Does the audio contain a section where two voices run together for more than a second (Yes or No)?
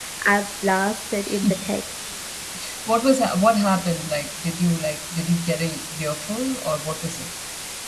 No